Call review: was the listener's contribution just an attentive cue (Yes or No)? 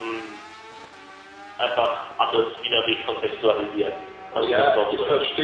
No